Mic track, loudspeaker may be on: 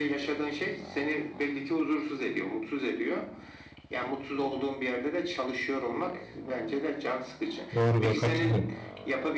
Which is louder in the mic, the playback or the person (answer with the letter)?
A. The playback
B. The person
B